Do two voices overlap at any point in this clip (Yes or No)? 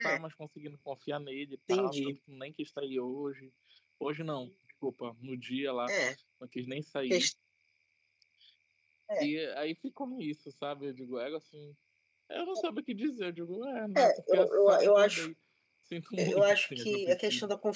Yes